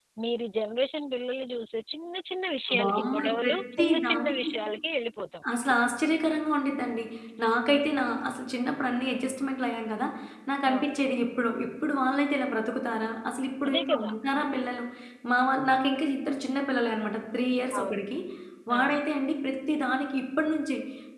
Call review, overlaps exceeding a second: present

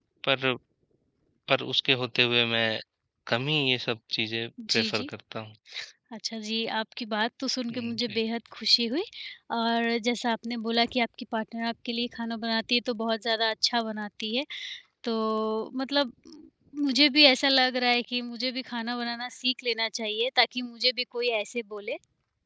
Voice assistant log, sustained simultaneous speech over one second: none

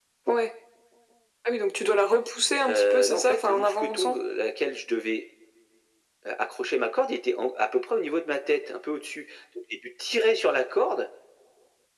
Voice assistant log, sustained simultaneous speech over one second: present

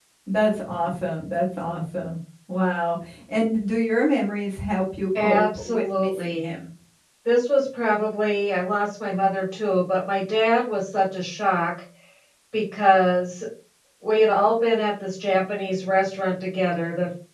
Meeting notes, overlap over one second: present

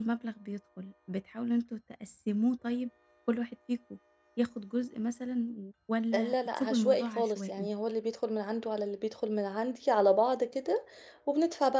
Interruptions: present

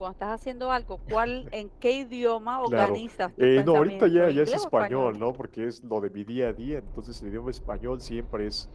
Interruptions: present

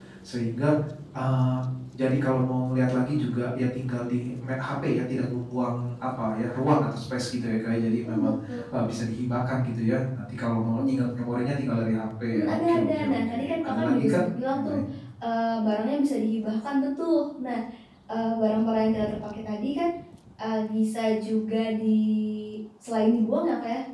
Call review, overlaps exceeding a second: present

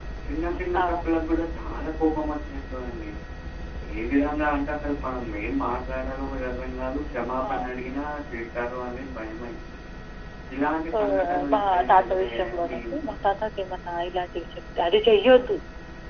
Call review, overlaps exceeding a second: present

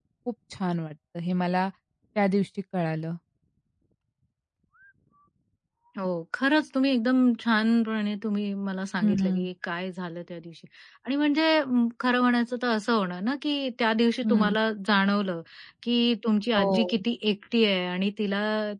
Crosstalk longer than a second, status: none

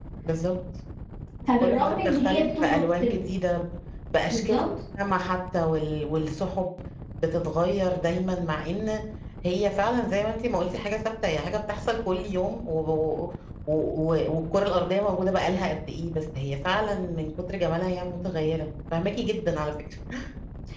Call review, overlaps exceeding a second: present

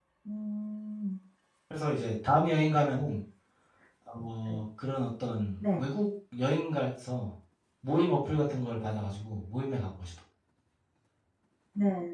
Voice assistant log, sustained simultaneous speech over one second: none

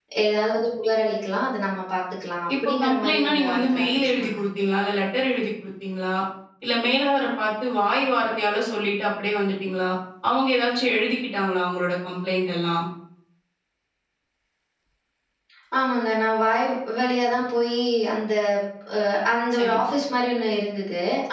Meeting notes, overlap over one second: present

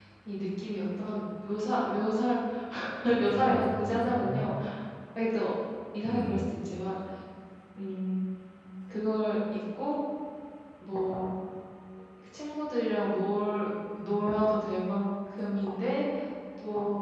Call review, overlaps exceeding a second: present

